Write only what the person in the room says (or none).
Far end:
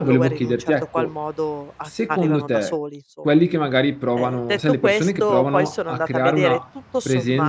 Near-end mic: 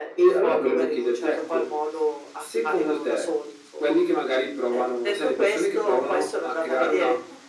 none